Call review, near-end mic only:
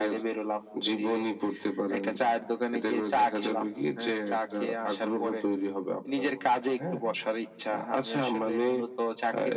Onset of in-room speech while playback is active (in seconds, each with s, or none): none